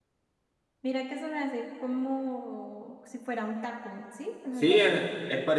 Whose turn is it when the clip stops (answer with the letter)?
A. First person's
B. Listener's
B